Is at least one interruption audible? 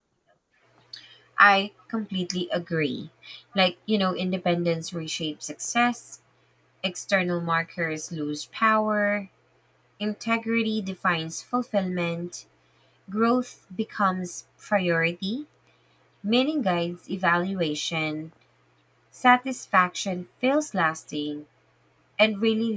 No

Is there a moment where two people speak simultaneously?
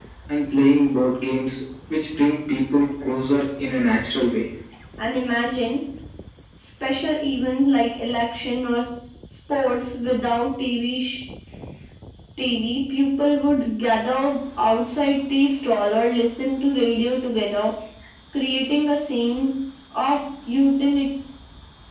No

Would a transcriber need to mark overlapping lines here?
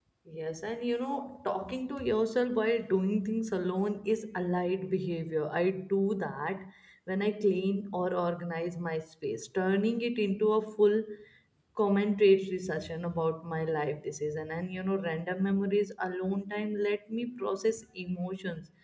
No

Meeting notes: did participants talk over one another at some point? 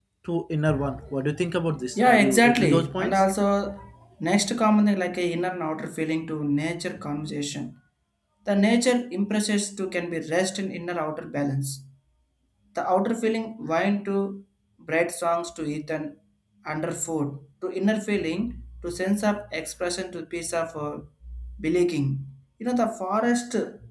Yes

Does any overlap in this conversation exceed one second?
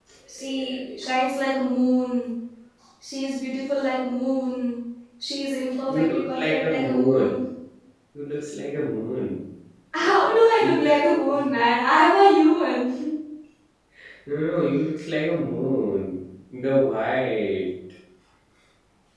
Yes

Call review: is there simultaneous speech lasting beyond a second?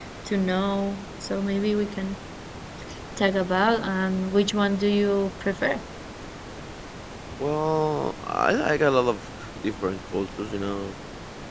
No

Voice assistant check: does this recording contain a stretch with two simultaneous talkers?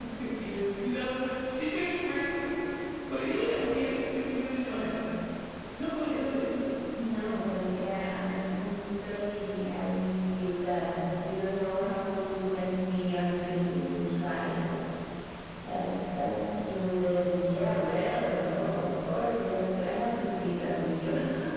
No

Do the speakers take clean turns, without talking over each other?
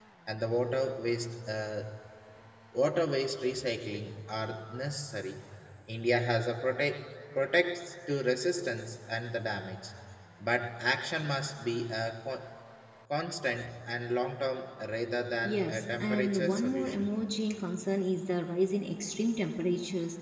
No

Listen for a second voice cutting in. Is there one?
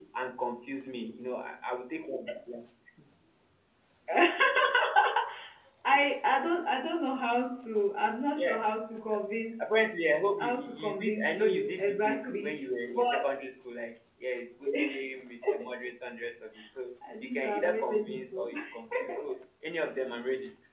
Yes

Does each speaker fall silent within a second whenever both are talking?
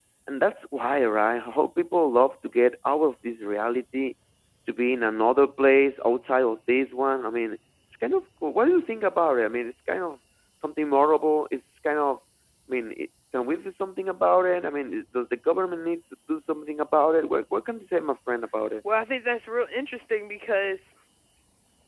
Yes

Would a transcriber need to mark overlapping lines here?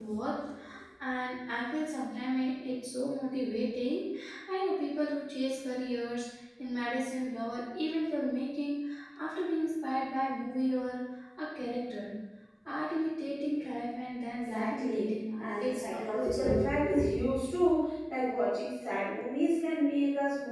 Yes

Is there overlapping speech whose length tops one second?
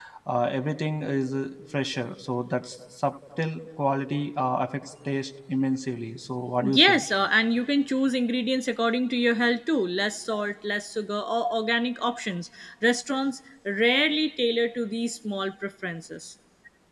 No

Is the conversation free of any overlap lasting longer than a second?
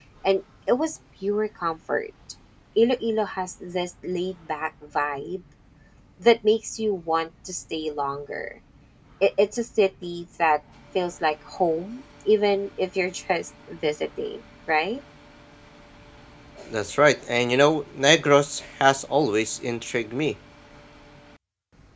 Yes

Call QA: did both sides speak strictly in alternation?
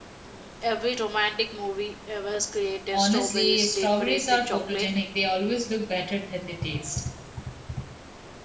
No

